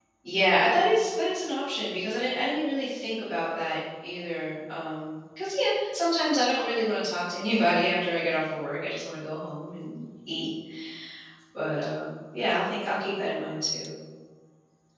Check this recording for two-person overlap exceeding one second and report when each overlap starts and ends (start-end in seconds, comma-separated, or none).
none